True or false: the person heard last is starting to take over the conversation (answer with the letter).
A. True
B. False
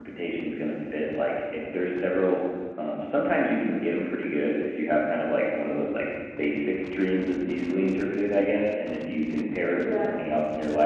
B